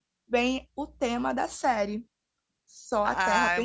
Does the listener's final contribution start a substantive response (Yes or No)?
Yes